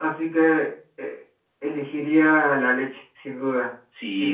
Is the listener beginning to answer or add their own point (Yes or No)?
Yes